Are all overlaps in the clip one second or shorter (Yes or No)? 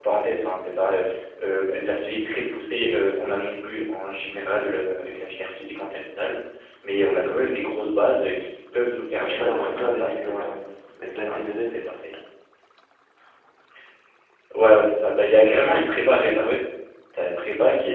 No